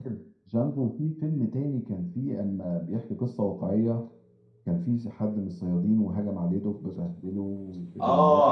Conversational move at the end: taking over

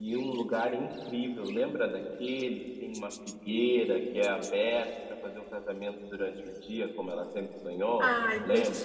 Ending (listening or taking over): taking over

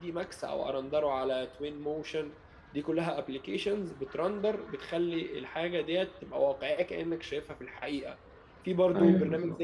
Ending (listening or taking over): listening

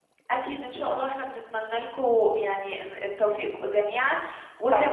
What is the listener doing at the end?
taking over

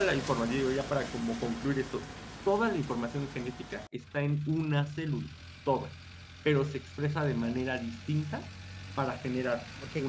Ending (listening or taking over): taking over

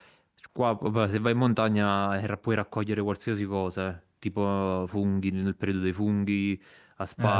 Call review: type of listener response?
listening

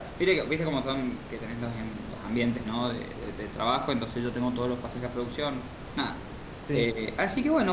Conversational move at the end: listening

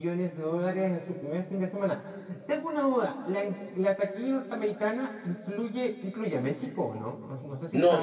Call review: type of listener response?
taking over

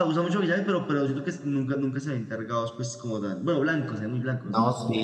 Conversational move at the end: taking over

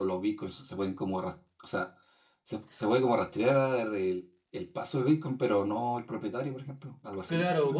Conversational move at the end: taking over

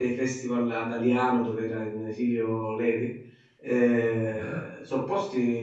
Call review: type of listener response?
listening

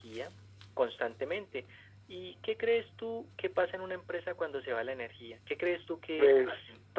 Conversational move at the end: taking over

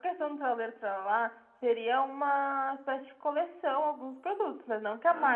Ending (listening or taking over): listening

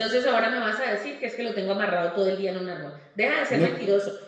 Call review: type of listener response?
listening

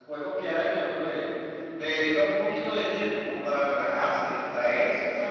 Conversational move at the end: listening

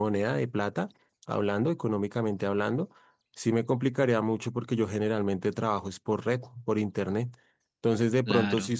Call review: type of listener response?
listening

